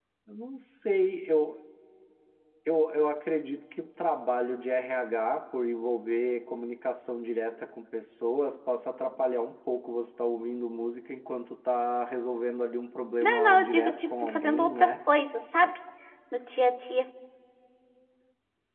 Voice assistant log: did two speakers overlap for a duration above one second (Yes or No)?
Yes